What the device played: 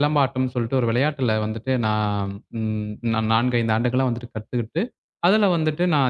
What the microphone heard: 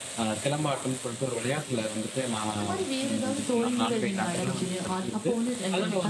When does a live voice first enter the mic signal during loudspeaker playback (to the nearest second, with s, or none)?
3 s